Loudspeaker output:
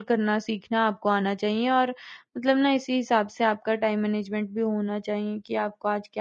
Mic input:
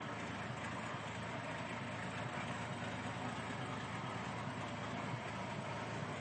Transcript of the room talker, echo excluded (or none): none